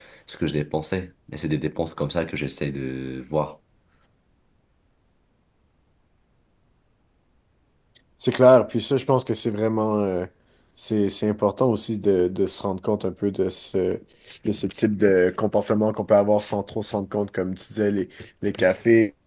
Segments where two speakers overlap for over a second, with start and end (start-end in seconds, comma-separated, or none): none